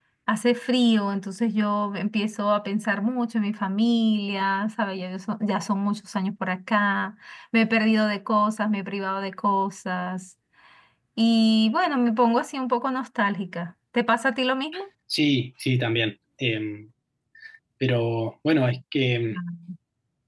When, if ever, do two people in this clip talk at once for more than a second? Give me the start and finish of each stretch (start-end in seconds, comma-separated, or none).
none